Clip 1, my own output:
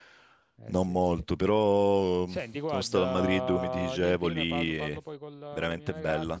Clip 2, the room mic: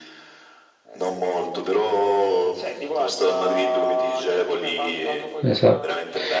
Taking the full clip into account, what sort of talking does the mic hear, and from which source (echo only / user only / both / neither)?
both